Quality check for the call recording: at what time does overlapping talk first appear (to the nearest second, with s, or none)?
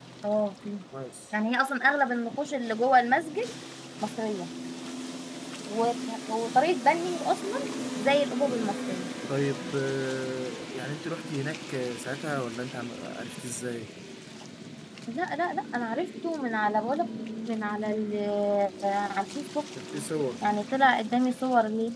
none